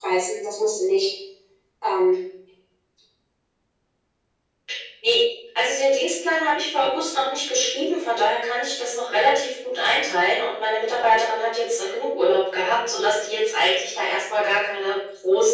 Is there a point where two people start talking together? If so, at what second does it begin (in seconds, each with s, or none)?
none